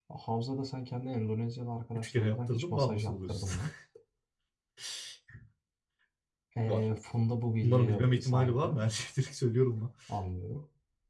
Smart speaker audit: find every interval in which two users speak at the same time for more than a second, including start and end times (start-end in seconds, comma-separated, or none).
2.0-3.5, 7.6-8.8